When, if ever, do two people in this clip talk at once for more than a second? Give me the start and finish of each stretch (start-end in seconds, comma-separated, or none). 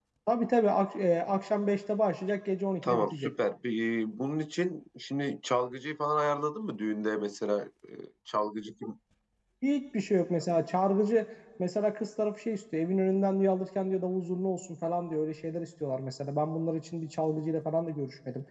none